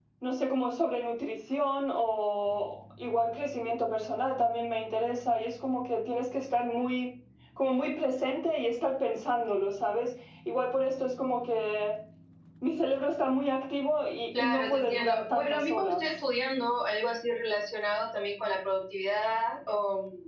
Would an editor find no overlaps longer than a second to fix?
No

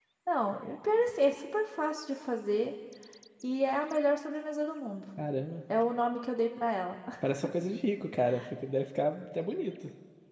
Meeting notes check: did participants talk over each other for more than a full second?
No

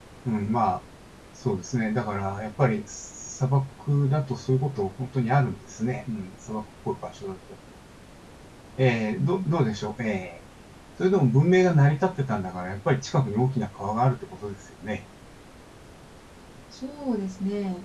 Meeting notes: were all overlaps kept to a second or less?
Yes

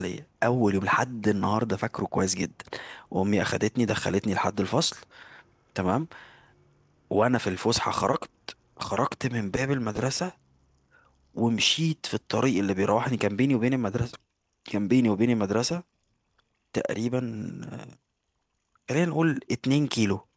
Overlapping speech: No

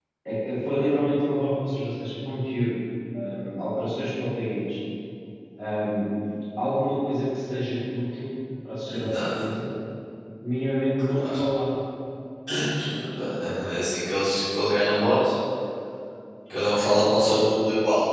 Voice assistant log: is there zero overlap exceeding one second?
Yes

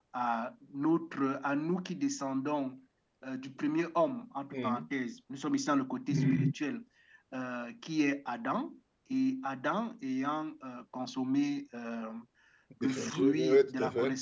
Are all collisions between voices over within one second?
No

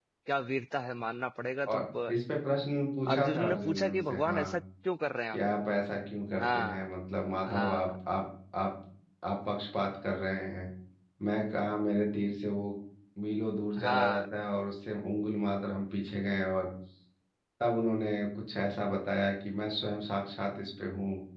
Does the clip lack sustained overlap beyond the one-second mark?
No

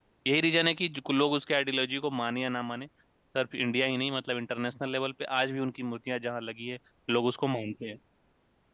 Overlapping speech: No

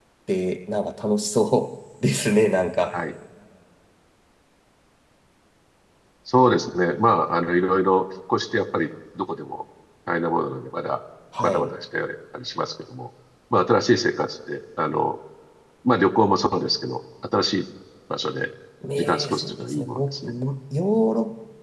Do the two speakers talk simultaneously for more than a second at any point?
Yes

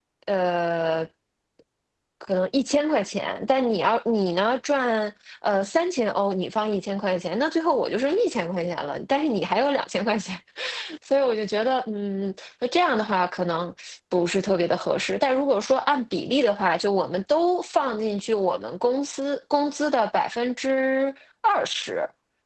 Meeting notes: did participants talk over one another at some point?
No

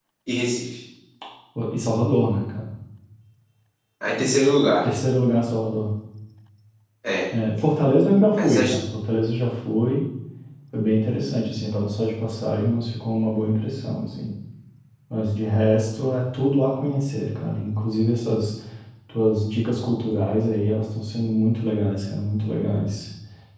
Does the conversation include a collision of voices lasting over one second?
No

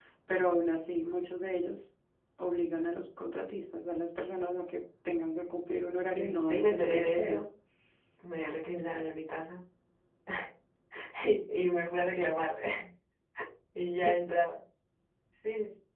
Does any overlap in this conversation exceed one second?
Yes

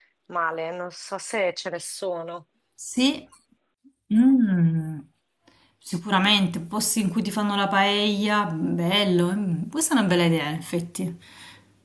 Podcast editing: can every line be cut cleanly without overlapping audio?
Yes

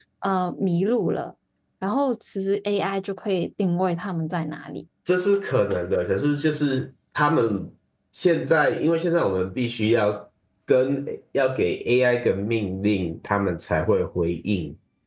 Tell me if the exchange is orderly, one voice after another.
Yes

